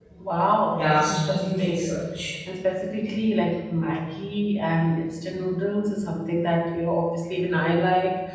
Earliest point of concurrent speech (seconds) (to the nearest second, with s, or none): 1 s